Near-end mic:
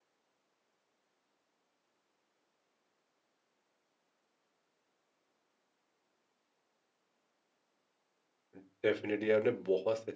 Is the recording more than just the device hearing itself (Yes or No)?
Yes